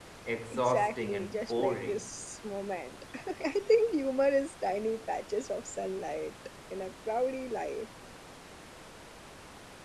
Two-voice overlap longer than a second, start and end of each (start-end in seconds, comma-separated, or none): 0.5-2.1